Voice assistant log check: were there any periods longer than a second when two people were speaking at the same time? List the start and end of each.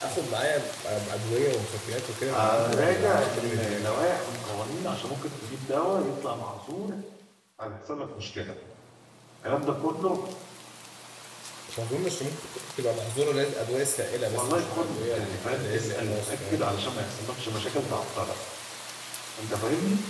2.3-3.8, 14.3-16.6

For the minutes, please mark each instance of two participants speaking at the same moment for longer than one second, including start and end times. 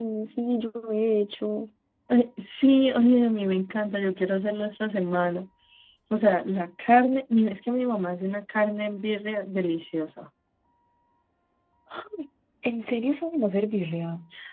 none

